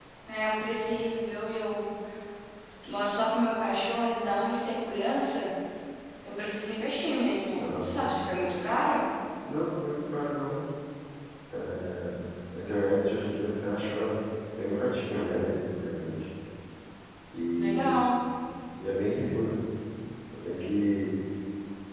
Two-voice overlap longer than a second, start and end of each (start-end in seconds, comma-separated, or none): none